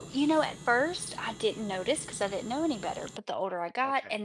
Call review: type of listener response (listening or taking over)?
listening